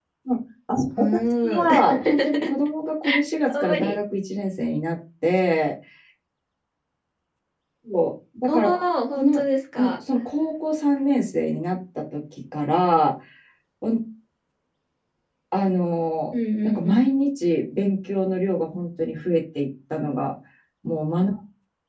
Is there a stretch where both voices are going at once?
Yes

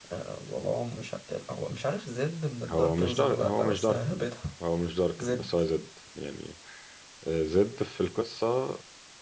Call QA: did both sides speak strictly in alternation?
No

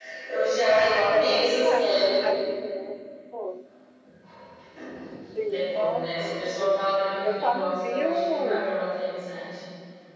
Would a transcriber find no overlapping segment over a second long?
No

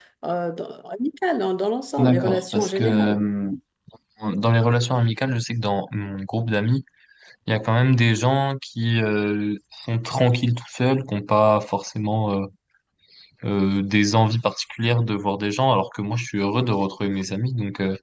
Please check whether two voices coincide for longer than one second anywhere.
Yes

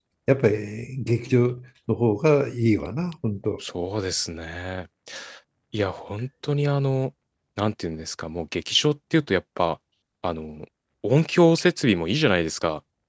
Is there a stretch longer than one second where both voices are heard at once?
No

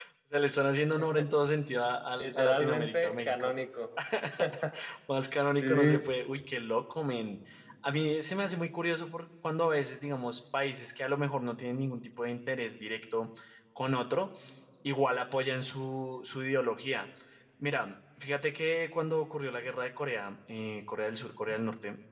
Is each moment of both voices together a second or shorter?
No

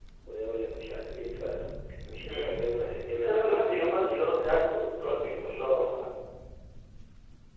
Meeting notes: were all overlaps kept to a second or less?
No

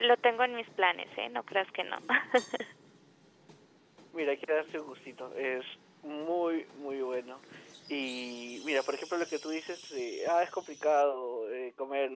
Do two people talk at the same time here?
No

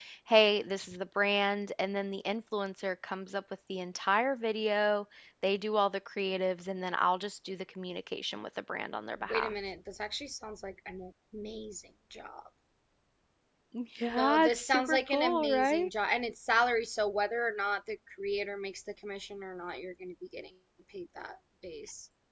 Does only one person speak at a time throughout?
No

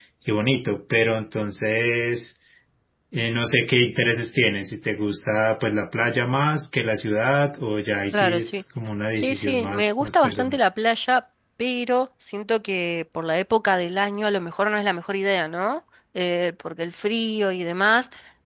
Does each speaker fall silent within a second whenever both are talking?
No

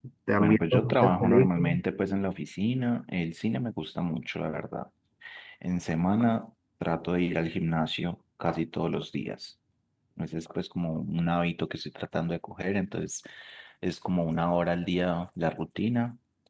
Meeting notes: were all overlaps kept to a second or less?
No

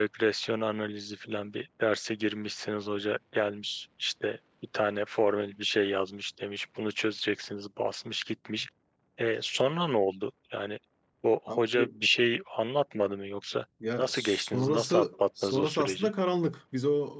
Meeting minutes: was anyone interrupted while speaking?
Yes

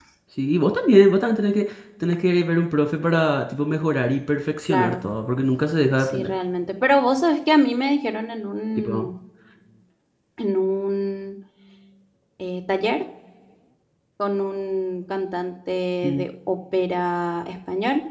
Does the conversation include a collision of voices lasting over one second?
No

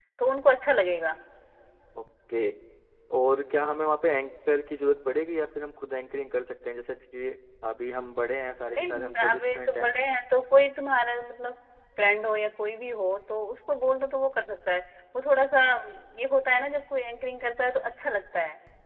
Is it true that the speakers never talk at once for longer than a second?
No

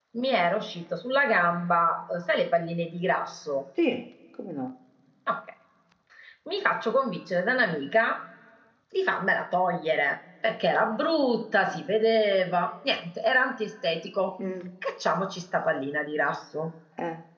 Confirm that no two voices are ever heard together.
Yes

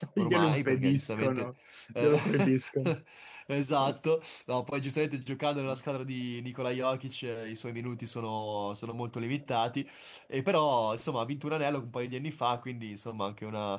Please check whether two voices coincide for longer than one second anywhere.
Yes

